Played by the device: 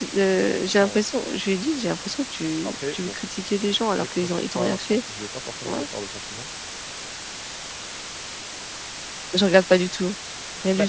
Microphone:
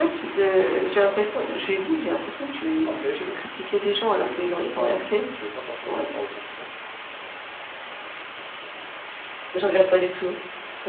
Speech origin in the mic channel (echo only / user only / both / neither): echo only